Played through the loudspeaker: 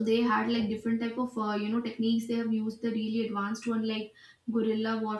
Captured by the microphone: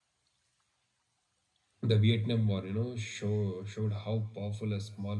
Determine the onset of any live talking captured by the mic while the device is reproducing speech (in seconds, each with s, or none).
1.8 s